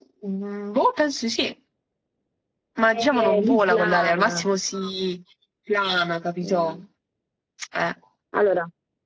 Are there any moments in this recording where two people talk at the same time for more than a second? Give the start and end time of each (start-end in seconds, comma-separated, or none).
2.9-4.5